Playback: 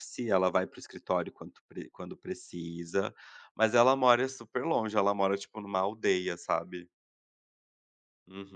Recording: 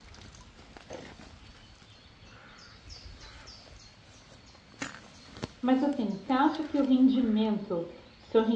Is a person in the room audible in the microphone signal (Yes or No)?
Yes